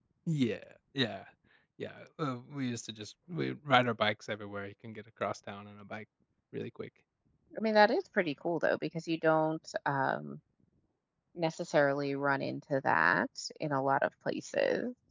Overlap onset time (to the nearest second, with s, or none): none